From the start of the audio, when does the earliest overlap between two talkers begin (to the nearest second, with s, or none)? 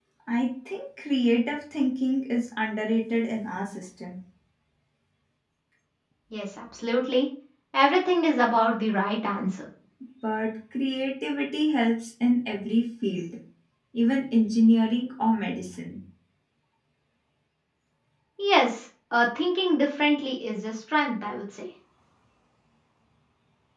none